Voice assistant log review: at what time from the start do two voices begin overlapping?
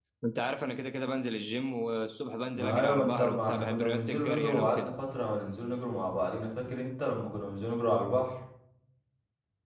2.5 s

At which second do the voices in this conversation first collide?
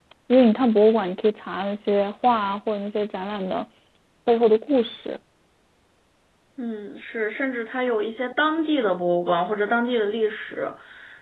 none

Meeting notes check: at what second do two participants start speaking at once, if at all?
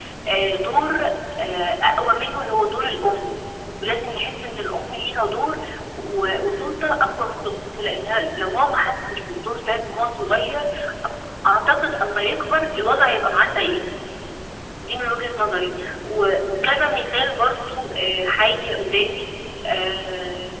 none

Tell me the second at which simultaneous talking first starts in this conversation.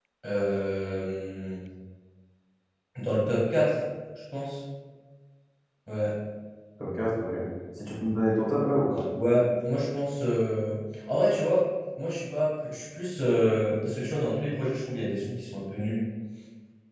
none

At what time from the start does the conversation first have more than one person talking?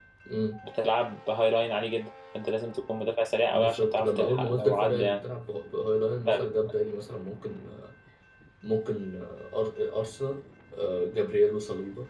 3.5 s

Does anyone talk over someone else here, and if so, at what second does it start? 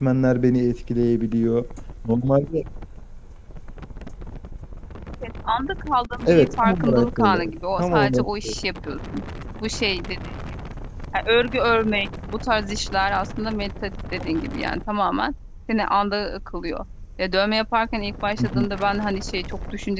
6.3 s

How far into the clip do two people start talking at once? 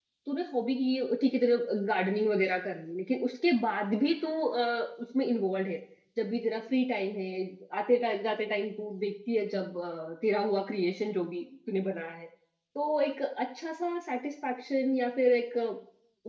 none

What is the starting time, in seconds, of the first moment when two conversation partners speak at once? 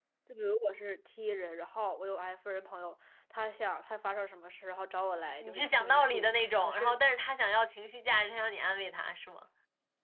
5.4 s

